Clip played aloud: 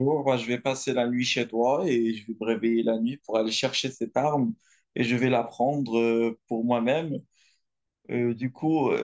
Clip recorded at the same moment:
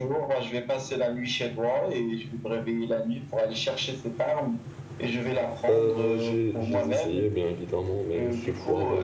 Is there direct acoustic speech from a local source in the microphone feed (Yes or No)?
Yes